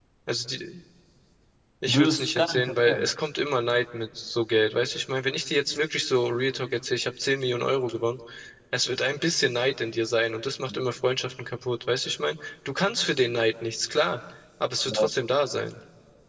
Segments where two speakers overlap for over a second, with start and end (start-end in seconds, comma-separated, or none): 1.9-3.1